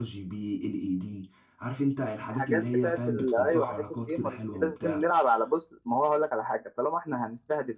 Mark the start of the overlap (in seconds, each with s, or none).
2.3 s